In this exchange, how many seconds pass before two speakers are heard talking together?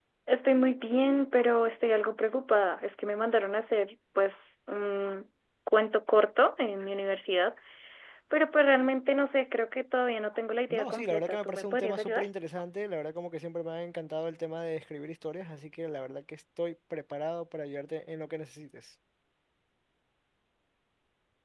10.7 s

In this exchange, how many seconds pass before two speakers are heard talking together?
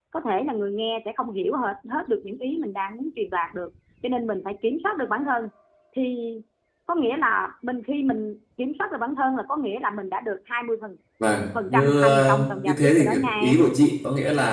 11.5 s

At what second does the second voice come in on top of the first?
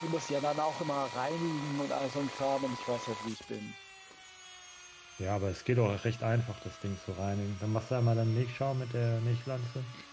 none

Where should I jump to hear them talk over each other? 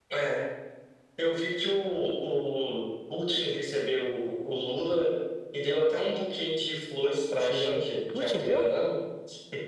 7.3 s

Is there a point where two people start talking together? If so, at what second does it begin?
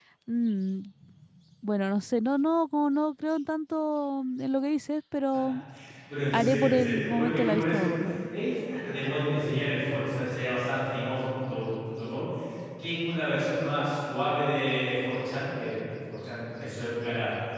6.3 s

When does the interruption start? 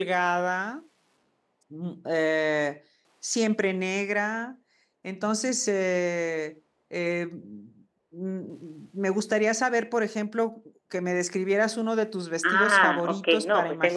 12.4 s

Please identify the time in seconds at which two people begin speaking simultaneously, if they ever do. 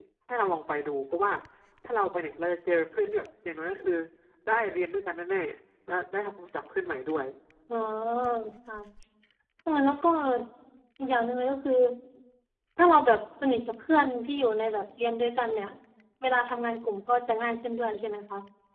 none

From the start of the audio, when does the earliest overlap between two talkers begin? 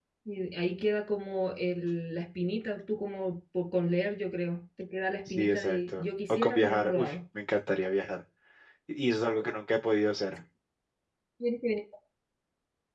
5.3 s

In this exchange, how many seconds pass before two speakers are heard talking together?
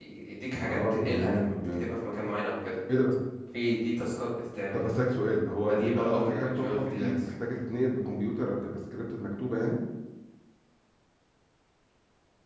0.7 s

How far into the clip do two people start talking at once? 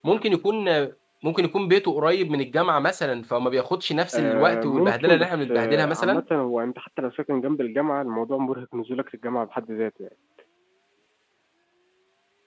4.1 s

